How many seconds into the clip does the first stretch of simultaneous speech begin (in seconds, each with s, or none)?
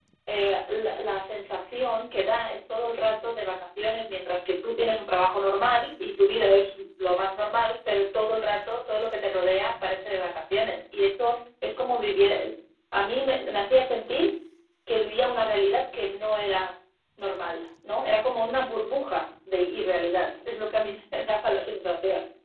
none